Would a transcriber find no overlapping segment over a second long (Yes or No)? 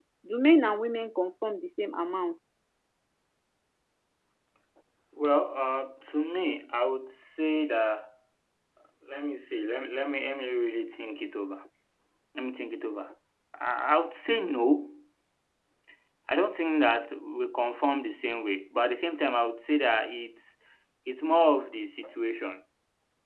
Yes